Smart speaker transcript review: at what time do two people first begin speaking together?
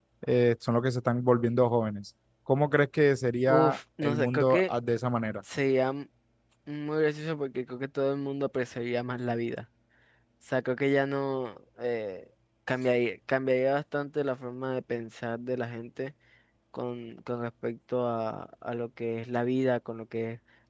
3.5 s

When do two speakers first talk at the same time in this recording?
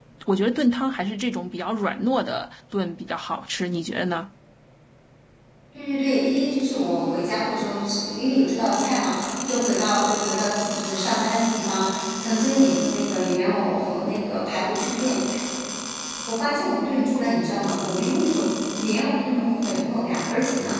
none

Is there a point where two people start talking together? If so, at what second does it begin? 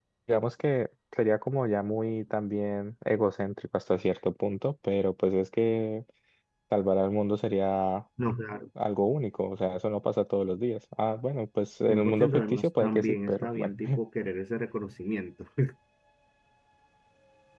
11.9 s

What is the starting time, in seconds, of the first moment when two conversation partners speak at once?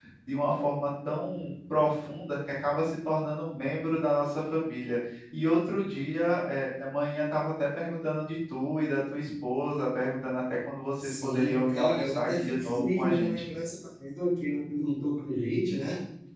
11.0 s

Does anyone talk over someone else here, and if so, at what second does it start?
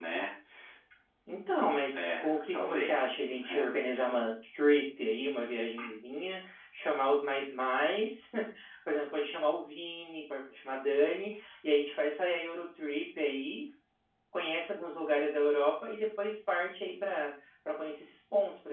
1.9 s

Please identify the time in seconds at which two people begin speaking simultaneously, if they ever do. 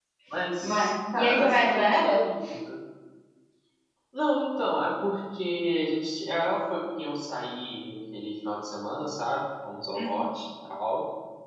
0.6 s

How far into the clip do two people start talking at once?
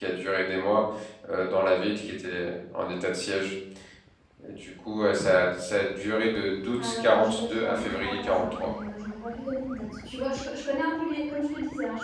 6.7 s

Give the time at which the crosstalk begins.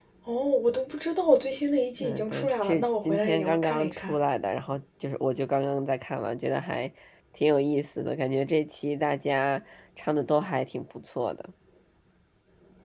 2.0 s

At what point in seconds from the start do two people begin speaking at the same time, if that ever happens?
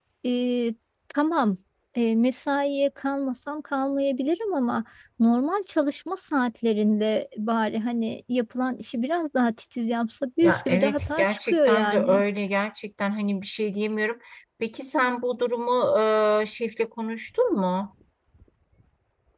10.4 s

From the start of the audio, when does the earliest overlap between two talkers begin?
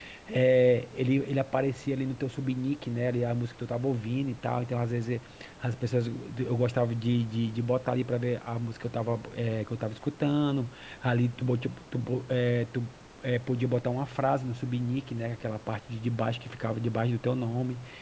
none

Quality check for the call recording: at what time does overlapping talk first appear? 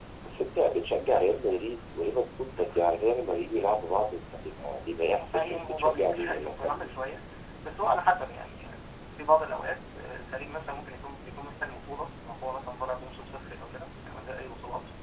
5.1 s

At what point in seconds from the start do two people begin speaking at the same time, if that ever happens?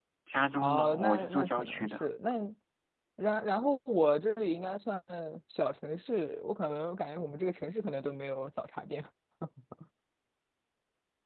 0.6 s

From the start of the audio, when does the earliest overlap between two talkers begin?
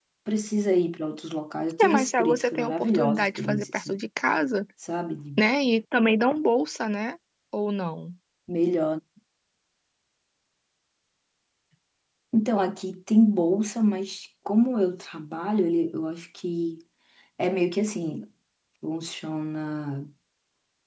1.8 s

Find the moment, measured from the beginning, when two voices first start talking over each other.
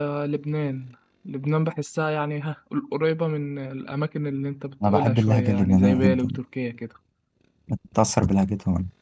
4.8 s

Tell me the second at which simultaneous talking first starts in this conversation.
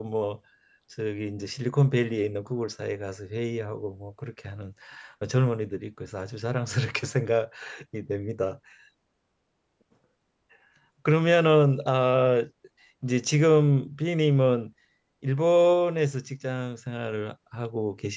none

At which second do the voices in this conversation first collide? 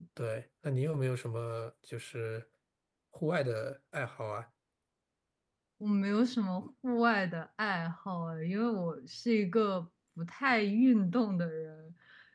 none

